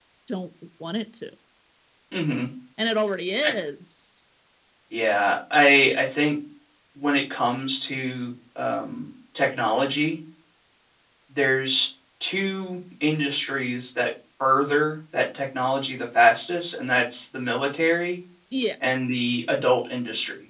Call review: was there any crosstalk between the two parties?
No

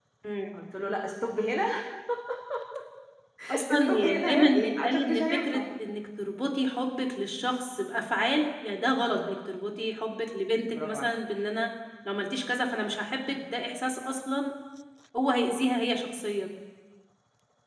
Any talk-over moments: Yes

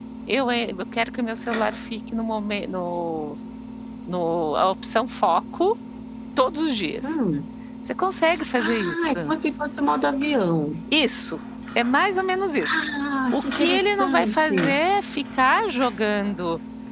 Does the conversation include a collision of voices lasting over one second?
Yes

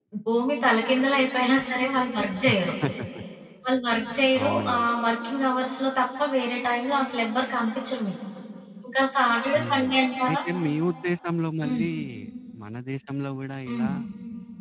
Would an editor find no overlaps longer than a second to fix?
Yes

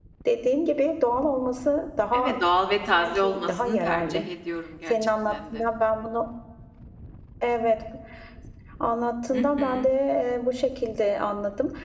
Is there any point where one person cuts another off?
Yes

